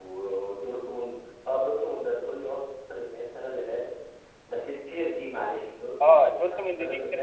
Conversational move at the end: taking over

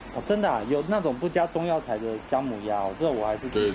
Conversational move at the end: taking over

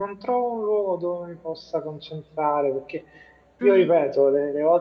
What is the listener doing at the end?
listening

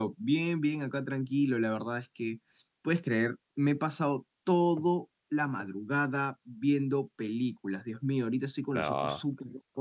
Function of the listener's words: listening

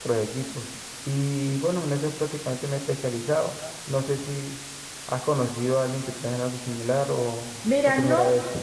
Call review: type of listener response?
taking over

